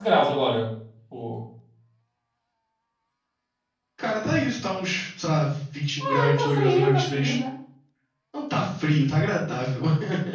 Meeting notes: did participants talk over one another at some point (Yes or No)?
Yes